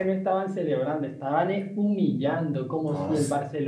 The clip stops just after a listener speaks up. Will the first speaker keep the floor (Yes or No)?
Yes